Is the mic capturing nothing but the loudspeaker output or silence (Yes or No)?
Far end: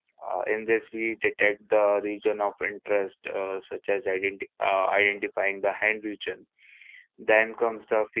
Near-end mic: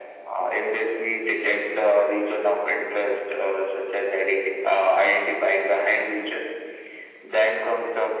Yes